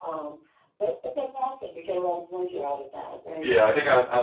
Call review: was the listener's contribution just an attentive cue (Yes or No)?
No